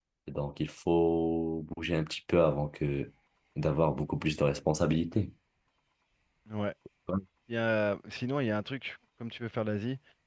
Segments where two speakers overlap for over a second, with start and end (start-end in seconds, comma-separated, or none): none